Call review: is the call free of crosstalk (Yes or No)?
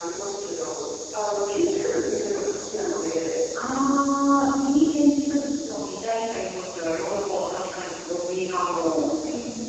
Yes